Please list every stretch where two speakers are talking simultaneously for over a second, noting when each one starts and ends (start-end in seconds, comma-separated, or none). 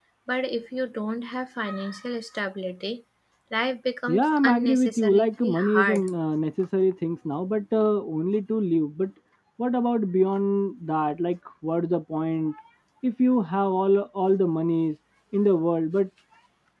4.1-6.1